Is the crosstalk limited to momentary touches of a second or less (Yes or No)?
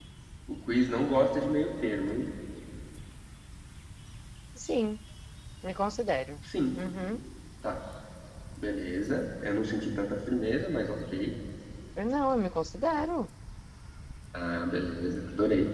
Yes